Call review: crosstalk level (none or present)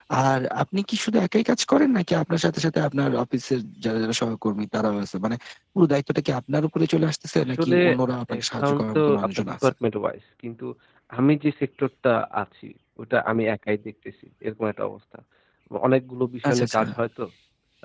present